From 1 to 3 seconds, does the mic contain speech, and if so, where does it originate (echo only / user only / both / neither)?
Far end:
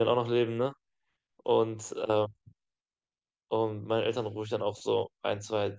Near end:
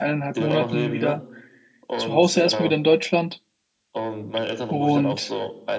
both